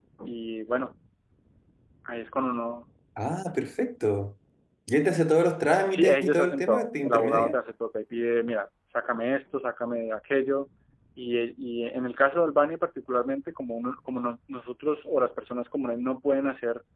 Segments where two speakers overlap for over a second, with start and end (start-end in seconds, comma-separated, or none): 5.8-7.6